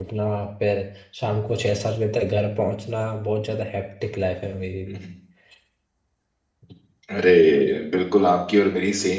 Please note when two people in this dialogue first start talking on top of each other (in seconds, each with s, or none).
none